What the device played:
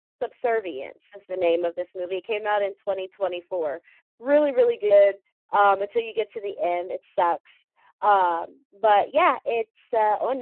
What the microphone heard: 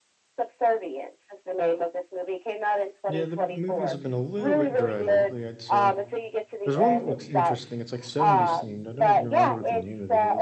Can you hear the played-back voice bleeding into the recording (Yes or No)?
Yes